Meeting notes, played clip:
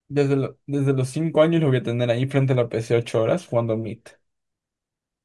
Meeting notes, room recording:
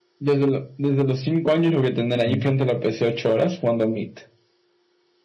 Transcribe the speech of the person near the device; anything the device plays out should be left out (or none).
Sun,